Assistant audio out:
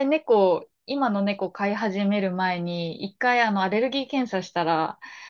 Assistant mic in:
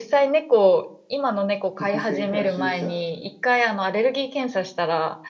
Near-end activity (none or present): present